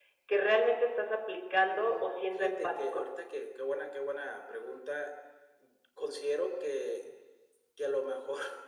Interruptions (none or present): present